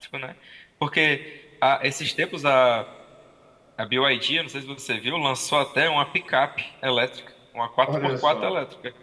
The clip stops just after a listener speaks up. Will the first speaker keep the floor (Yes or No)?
Yes